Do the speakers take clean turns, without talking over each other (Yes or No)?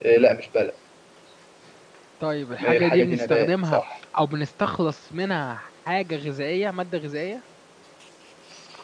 No